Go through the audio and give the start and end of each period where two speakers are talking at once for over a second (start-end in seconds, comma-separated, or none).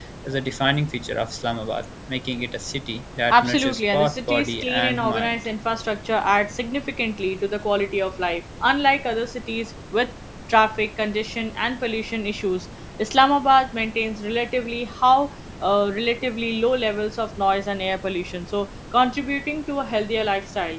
3.3-5.4